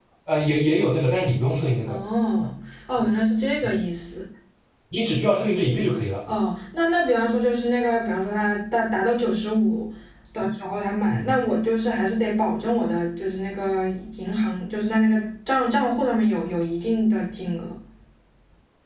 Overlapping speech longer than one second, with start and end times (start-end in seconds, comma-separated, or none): none